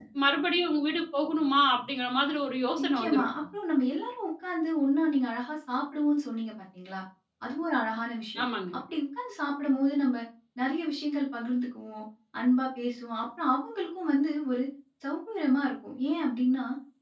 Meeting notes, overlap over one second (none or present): none